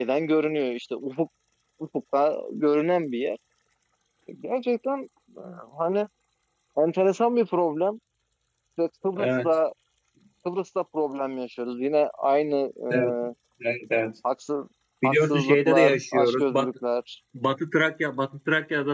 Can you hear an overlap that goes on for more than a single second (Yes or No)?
Yes